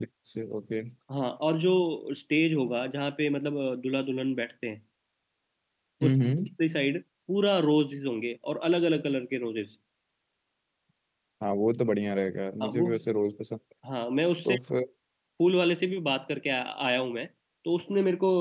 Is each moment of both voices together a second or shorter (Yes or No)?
Yes